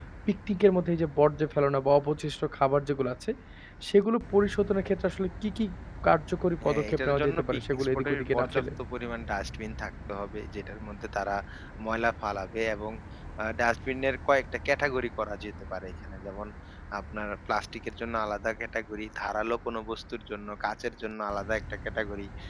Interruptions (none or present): present